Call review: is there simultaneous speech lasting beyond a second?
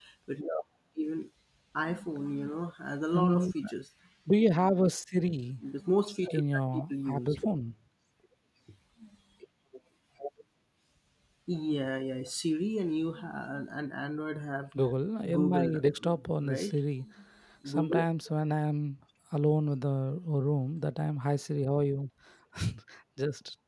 Yes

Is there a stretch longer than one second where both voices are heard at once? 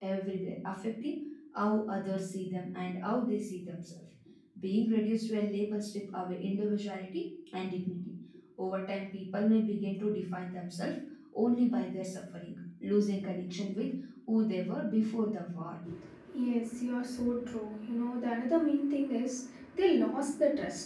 No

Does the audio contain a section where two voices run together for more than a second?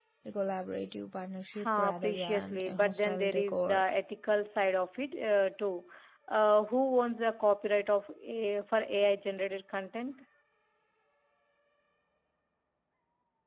Yes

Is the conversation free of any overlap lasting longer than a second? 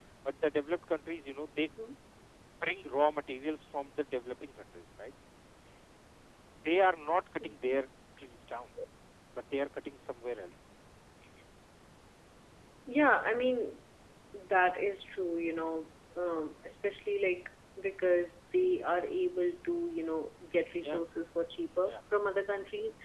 Yes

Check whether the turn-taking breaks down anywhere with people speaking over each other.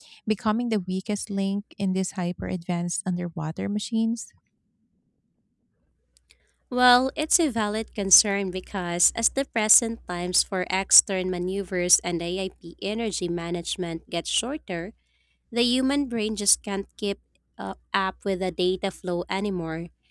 No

